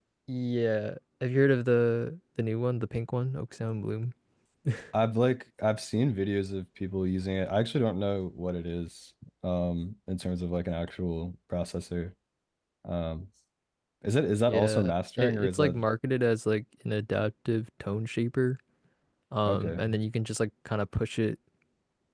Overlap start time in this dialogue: 14 s

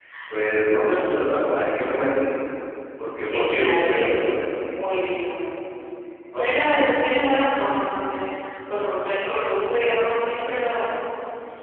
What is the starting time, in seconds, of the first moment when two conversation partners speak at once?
3 s

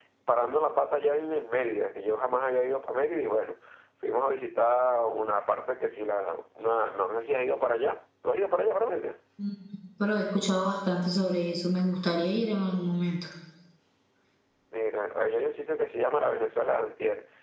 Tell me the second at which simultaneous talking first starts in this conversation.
none

